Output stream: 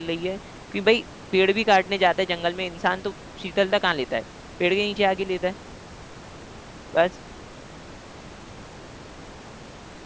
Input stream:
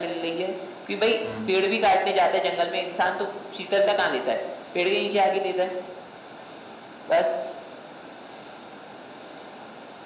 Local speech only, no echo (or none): हम्म